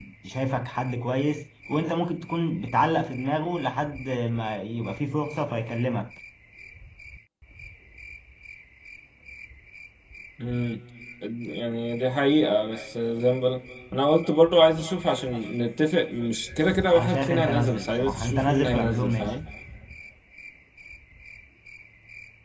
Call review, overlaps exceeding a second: present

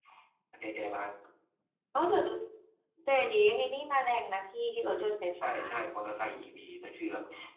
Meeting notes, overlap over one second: none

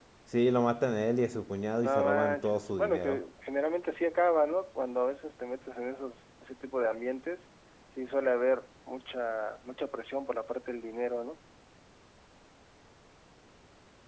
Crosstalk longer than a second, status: present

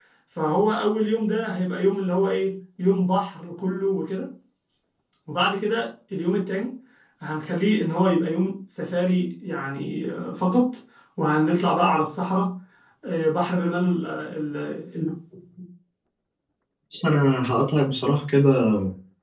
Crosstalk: none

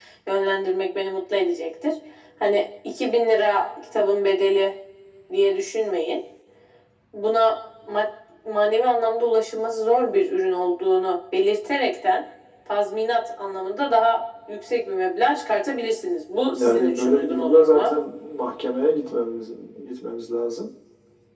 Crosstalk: present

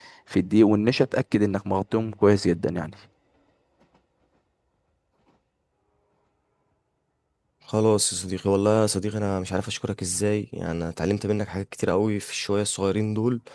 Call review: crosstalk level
none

